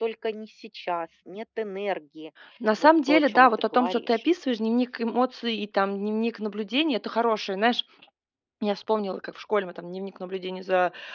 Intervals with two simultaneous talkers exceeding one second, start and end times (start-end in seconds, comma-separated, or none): 2.8-4.2